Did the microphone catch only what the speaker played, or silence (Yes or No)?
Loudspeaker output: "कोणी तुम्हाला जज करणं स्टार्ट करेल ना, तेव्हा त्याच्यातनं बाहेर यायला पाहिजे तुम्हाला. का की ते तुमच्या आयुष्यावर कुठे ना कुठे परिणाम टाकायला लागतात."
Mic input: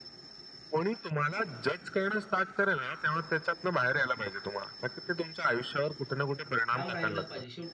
No